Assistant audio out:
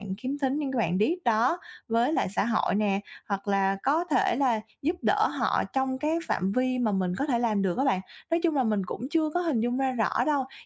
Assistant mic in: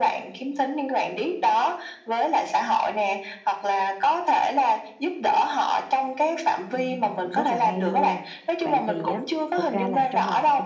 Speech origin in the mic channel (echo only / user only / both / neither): both